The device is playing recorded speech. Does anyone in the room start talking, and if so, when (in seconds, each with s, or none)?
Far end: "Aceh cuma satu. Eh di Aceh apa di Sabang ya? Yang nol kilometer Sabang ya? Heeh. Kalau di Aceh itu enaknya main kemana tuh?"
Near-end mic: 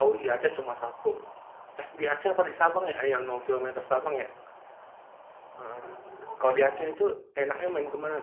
none